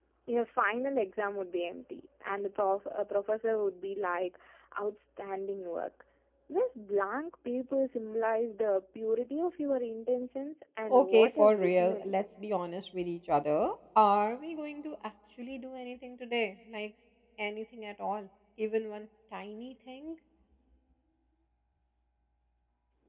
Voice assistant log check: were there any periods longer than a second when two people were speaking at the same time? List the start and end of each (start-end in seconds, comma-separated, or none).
10.9-12.2